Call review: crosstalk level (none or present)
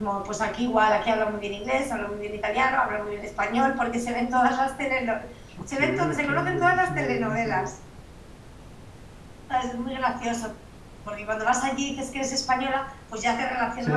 present